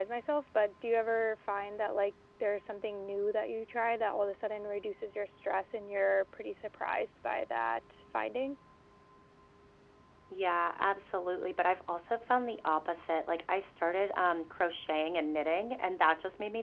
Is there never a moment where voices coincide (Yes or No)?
Yes